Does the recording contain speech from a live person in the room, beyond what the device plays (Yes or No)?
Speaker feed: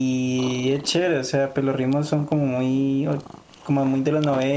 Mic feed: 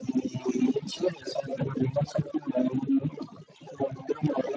No